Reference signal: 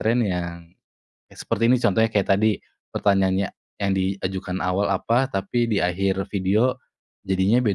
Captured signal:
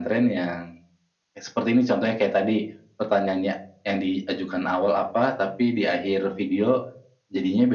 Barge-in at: none

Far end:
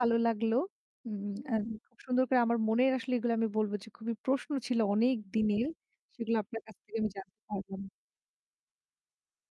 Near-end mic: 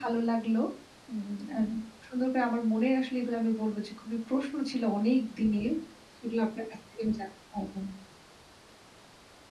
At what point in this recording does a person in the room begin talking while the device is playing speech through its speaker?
none

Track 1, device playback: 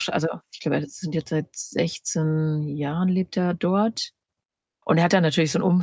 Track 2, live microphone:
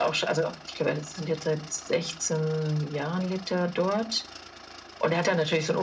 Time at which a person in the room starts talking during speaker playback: none

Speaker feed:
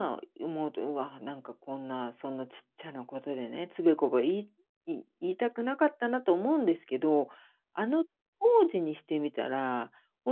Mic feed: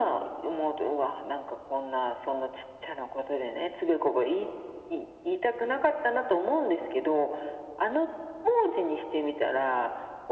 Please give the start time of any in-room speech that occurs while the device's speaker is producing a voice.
none

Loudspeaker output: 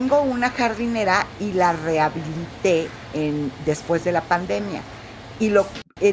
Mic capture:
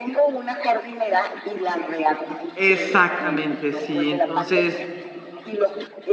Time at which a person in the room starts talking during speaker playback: 2.5 s

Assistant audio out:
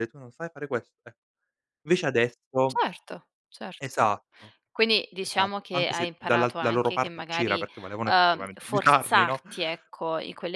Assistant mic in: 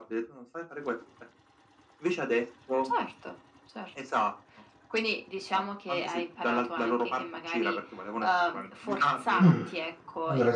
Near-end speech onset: 9.4 s

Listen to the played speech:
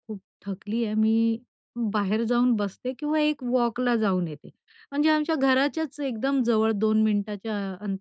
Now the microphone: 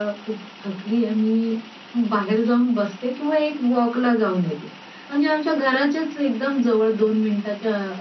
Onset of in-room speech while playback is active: none

